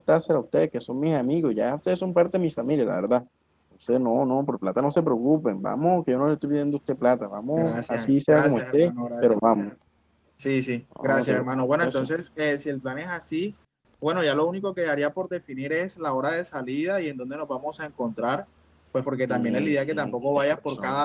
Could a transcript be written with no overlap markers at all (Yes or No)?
No